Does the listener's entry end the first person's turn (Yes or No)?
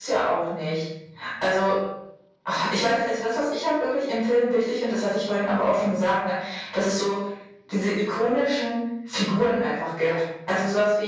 No